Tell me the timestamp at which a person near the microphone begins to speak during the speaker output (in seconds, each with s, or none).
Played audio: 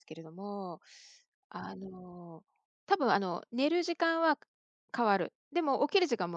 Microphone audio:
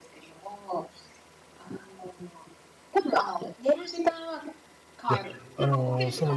5.1 s